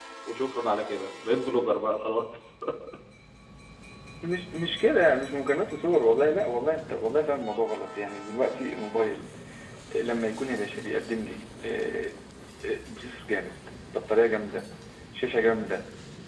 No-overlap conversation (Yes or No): Yes